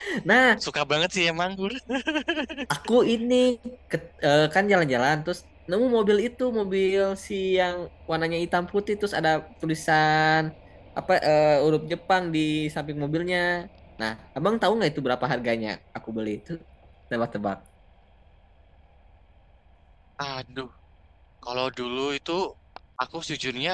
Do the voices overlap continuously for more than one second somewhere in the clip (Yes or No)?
No